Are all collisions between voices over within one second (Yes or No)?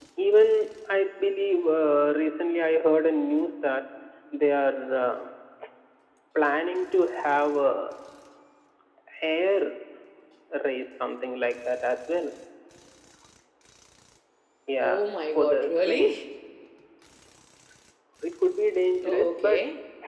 No